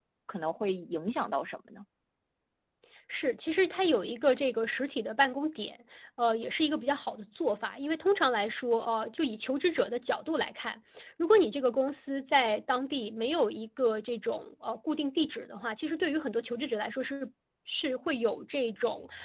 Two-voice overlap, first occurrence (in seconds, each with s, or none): none